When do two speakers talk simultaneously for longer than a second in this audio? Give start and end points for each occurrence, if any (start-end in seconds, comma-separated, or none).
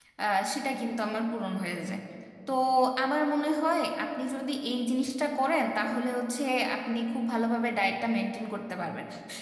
none